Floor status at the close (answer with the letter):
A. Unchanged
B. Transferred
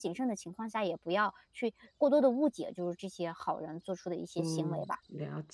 B